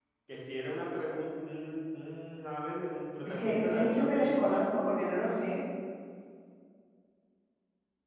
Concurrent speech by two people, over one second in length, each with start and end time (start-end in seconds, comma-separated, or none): 3.2-4.6